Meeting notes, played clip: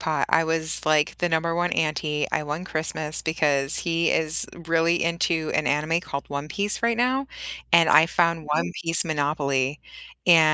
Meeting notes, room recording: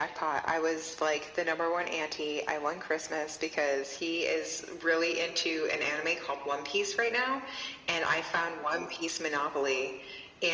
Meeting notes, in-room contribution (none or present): none